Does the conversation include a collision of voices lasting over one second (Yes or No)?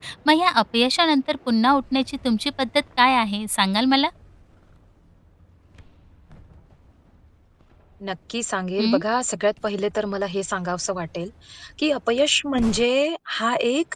No